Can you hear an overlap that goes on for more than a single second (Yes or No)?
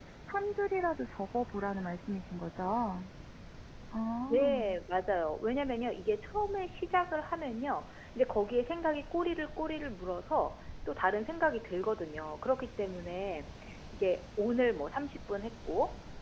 No